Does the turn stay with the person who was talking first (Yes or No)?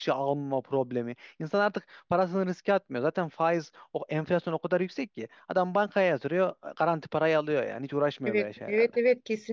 No